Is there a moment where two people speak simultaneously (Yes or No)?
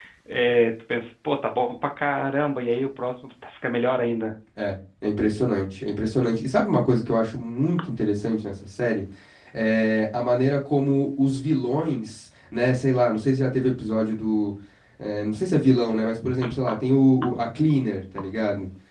No